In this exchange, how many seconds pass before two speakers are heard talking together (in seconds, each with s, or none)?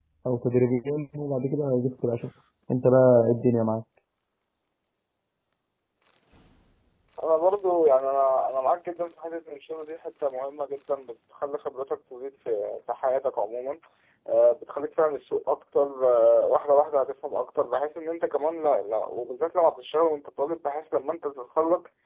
none